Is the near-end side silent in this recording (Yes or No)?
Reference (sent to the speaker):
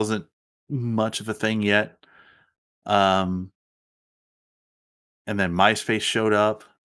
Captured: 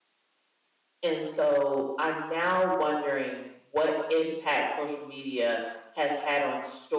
No